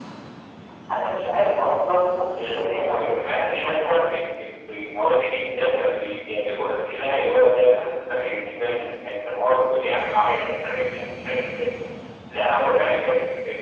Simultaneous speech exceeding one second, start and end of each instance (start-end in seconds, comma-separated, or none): 2.4-4.1